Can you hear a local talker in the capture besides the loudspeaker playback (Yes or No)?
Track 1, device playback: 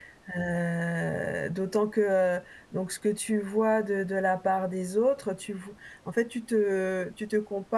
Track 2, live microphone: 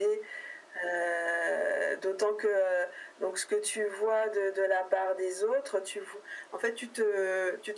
No